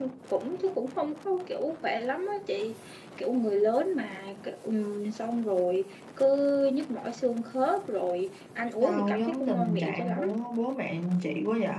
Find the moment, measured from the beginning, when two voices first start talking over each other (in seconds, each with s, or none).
8.8 s